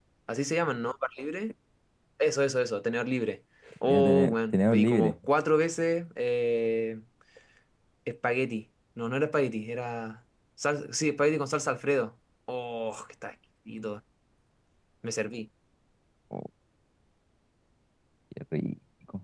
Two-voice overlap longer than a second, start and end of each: 3.9-5.1

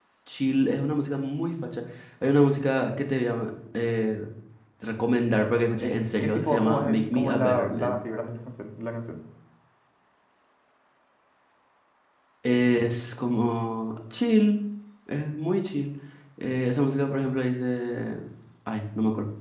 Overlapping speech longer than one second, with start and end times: 5.7-8.0

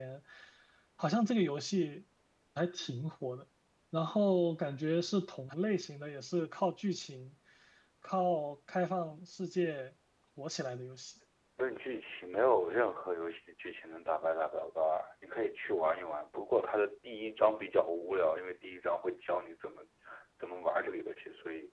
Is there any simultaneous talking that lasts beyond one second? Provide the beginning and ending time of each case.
none

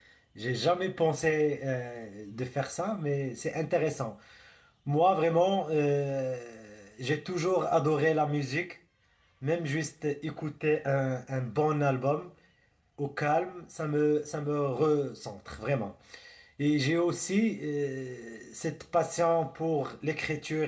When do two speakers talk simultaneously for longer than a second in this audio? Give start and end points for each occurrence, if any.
none

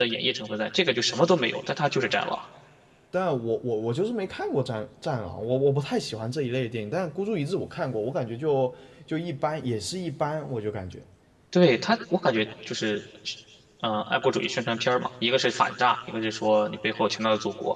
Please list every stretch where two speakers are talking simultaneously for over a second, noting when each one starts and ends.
none

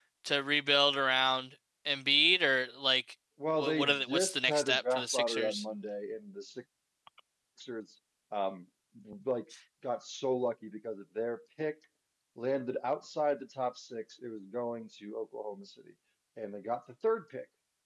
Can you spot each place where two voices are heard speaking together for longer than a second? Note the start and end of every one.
3.6-5.6

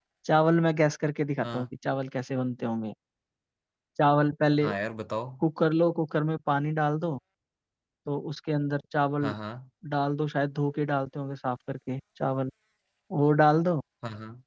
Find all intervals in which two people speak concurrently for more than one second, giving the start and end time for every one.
none

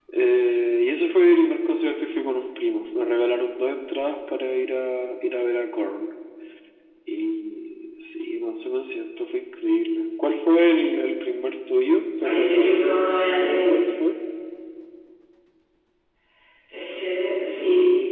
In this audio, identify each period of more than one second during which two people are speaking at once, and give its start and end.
12.2-13.8

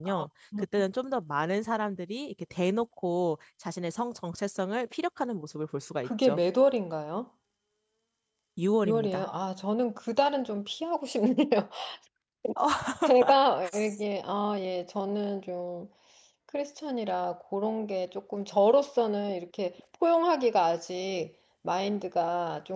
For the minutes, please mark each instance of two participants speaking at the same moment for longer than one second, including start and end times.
none

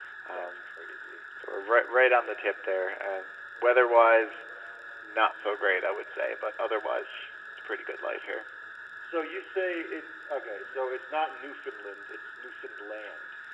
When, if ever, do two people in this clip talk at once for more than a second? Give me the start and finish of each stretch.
none

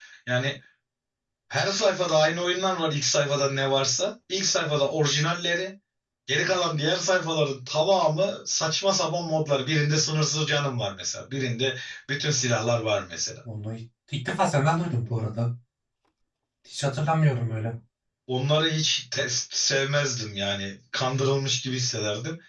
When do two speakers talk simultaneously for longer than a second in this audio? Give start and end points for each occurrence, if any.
none

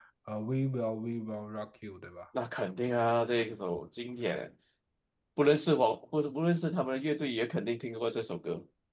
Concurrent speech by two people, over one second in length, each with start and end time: none

